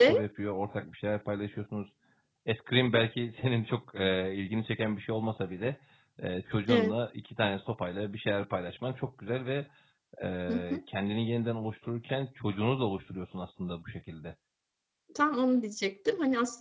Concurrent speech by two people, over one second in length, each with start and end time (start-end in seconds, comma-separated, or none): none